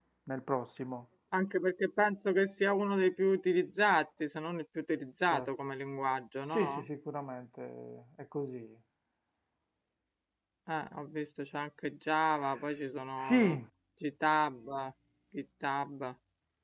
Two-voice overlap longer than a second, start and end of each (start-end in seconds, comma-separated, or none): none